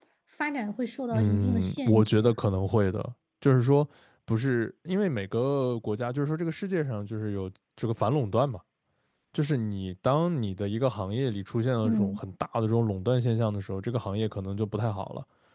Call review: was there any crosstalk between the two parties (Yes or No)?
Yes